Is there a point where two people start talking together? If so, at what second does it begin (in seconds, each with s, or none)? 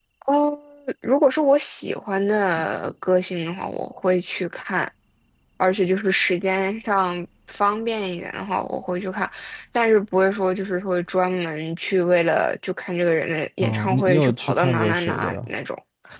13.6 s